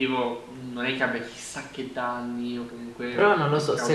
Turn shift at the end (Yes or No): Yes